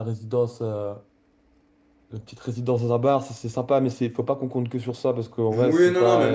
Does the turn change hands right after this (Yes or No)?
Yes